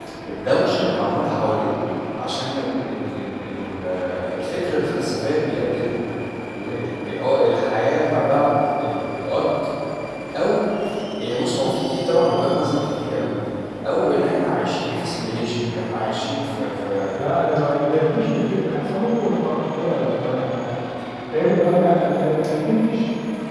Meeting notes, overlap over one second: none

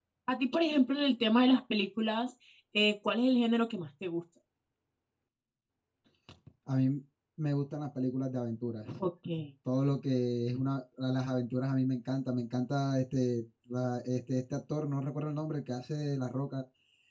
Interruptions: none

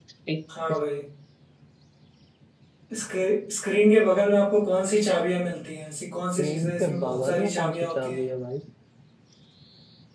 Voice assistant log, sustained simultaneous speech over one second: present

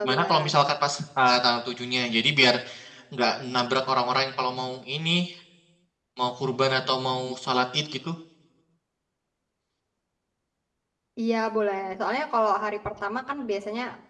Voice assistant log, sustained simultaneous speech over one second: none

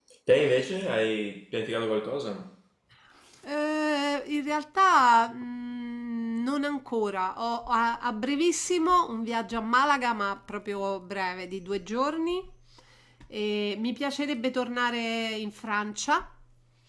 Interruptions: none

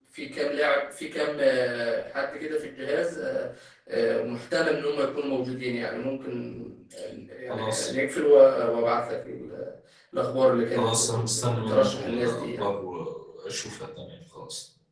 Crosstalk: present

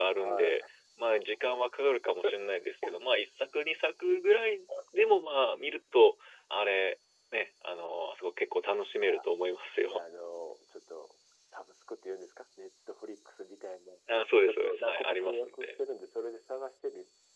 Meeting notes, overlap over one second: present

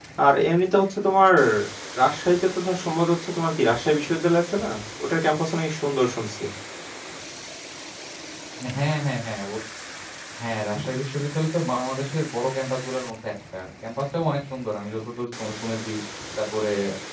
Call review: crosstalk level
none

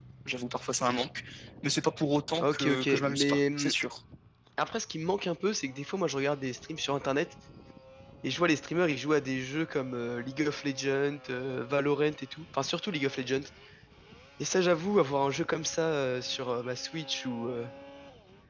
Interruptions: present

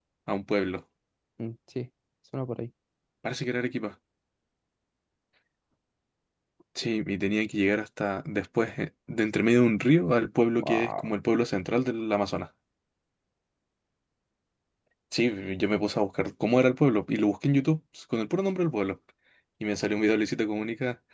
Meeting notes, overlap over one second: none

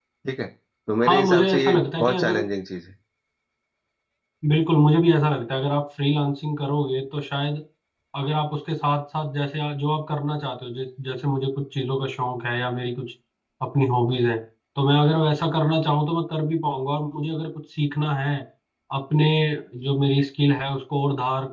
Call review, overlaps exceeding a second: present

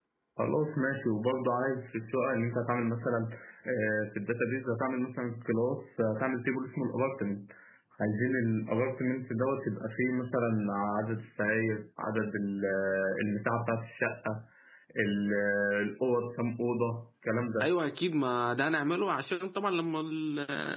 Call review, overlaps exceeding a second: none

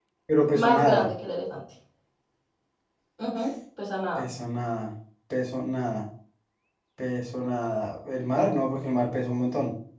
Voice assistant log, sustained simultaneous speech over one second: none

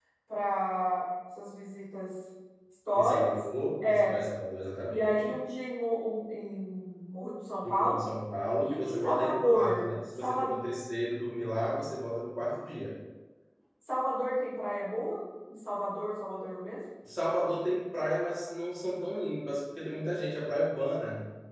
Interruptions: present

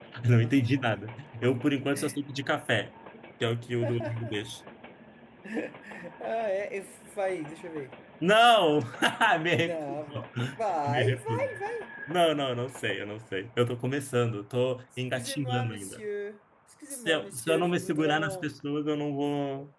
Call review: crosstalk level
present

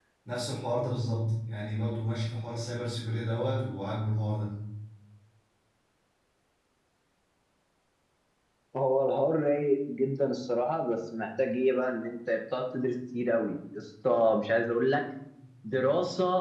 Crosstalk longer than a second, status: none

